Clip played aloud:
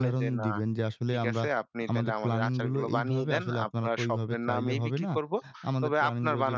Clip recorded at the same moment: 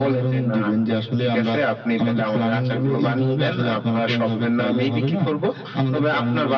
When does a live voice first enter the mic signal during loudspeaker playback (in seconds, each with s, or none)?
none